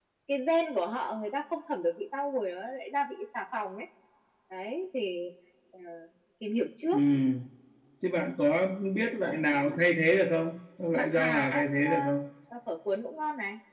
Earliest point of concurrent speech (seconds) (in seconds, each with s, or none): 10.9 s